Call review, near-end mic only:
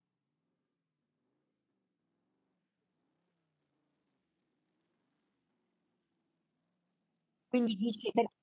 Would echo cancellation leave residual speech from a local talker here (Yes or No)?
Yes